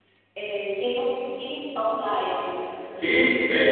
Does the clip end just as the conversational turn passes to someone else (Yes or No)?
Yes